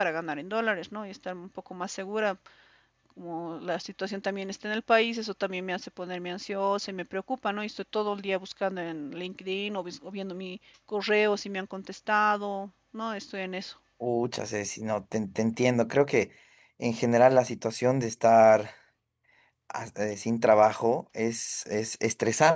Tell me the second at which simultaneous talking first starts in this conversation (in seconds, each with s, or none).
none